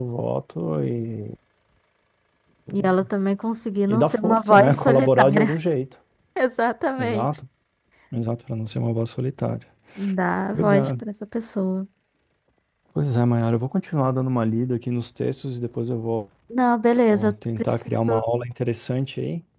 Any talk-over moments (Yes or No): Yes